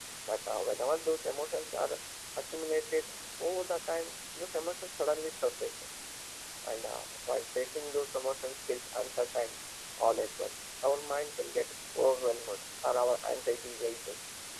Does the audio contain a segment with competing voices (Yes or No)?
No